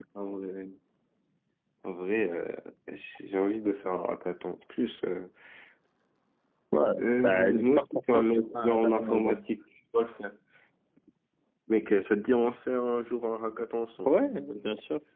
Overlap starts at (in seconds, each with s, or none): 7.0 s